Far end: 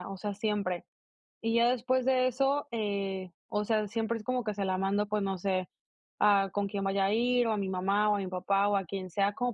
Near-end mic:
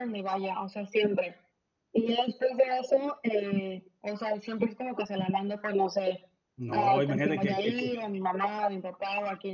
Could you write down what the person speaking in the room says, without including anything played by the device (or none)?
No, imagínate que que que